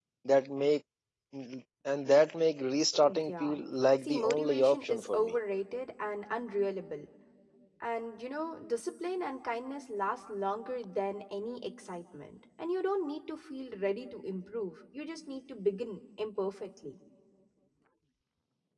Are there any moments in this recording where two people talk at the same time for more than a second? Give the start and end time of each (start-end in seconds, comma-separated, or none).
4.0-5.3